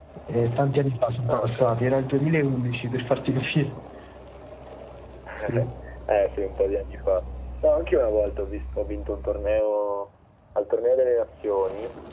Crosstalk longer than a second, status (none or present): none